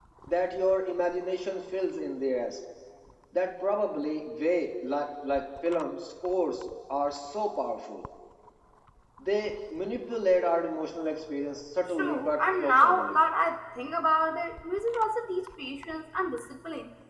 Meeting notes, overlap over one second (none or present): present